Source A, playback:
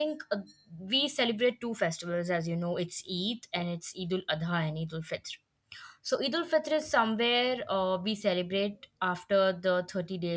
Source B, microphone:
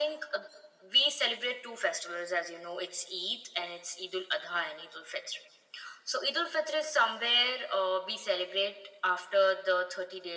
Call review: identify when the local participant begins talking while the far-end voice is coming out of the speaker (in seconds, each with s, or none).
none